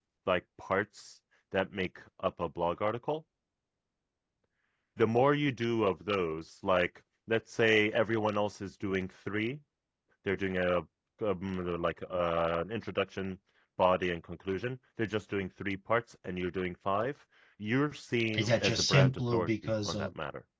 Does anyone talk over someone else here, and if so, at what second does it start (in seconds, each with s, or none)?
18.3 s